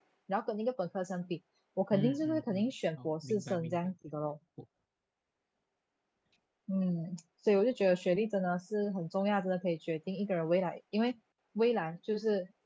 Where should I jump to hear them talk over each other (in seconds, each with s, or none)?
1.9 s